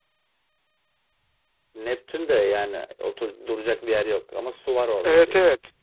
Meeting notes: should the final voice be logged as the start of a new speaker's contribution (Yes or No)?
Yes